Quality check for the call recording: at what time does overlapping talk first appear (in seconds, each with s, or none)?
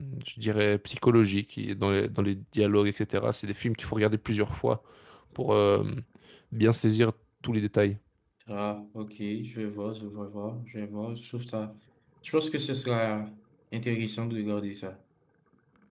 none